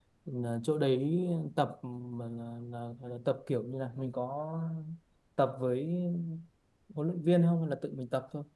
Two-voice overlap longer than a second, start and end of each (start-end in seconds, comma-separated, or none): none